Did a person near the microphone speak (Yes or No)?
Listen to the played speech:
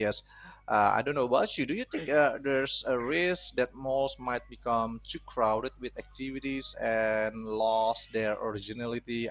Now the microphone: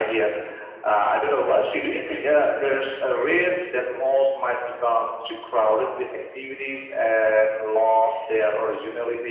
No